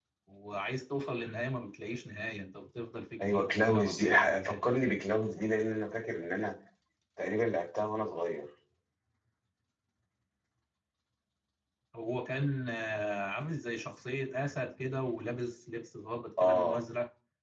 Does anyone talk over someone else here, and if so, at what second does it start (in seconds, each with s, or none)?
3.2 s